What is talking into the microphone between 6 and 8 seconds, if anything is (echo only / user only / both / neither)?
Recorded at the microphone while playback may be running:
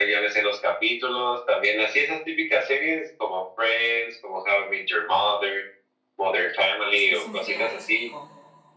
both